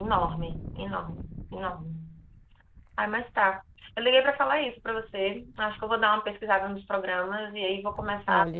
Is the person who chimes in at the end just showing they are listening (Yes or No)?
No